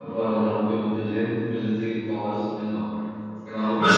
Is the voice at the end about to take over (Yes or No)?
Yes